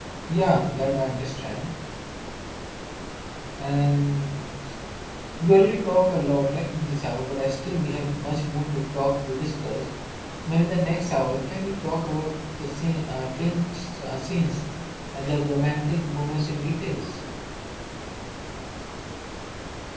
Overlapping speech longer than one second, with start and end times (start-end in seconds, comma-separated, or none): none